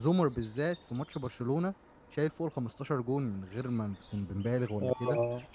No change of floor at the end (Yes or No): Yes